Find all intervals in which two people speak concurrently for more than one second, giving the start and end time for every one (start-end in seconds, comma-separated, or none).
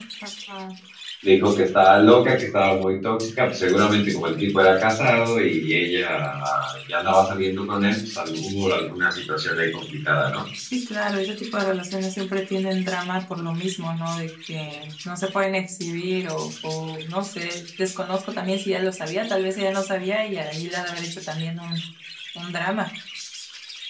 none